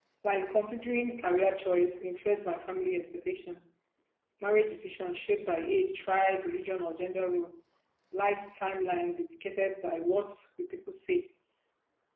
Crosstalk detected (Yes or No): No